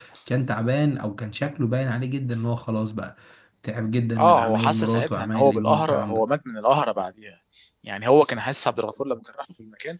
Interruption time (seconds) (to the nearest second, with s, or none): 4 s